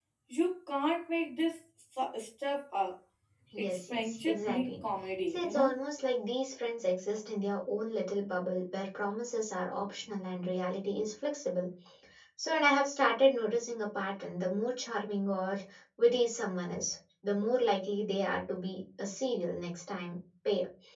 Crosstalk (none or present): present